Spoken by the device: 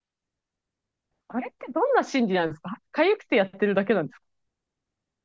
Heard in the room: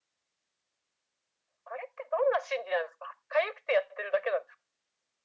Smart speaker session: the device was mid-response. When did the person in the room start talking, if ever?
none

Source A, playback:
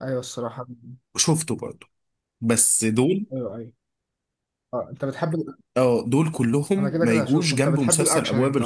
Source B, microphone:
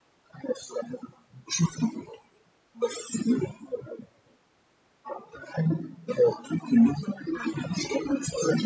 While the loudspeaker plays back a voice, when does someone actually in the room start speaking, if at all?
none

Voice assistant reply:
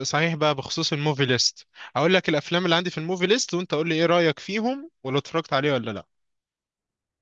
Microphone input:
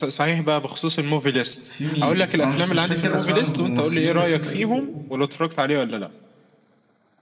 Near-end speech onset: 2 s

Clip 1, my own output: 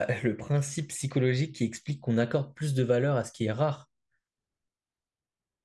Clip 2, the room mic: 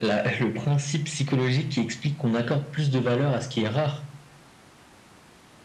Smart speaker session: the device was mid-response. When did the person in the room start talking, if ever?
none

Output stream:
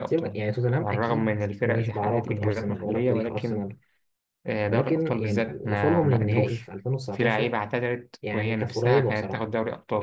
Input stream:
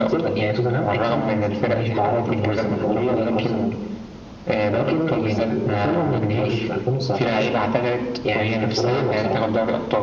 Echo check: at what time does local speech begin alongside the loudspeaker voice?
none

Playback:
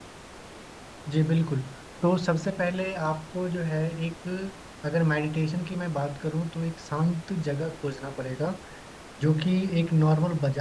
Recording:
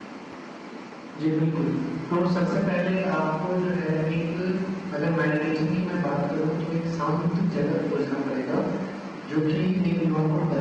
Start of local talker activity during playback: none

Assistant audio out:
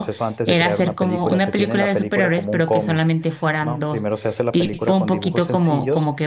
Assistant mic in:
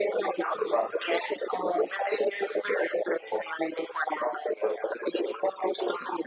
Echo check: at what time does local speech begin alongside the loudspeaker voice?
none

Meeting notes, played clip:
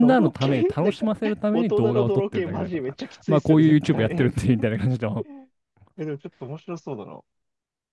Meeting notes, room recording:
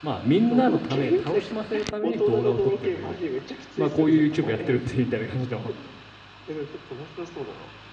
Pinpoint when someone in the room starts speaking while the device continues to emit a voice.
none

